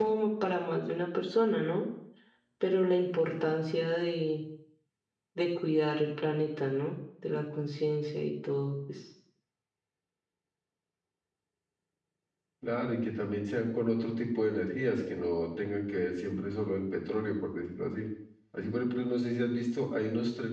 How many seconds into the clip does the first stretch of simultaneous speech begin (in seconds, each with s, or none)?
none